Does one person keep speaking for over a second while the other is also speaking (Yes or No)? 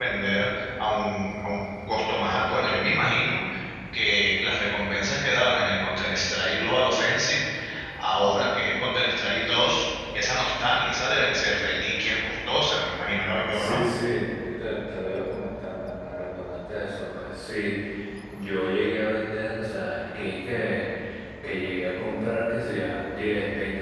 No